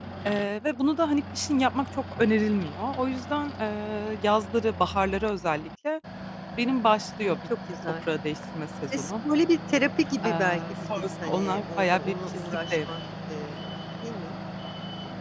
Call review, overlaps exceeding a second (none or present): present